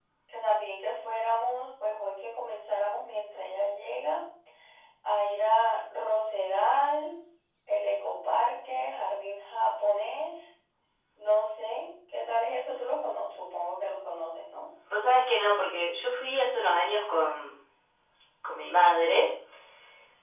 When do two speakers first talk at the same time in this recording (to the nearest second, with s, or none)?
none